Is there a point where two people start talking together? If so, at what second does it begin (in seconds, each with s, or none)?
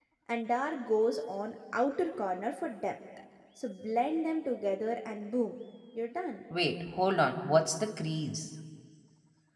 none